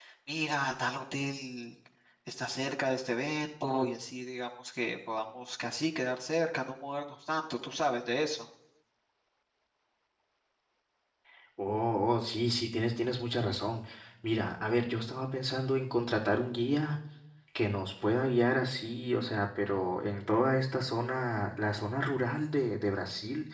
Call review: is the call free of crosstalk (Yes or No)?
Yes